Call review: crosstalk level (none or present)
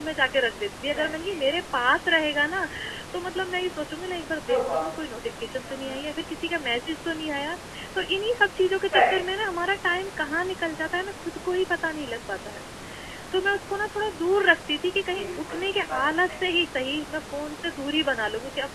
present